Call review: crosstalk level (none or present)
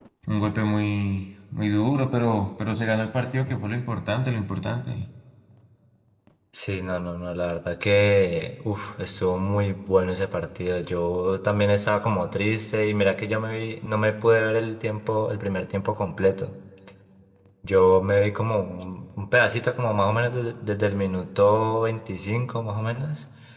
none